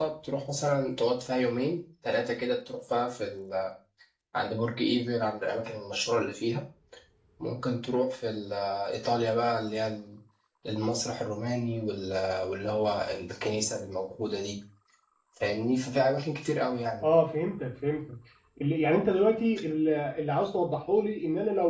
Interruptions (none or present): none